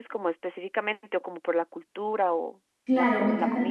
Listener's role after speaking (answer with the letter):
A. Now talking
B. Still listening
A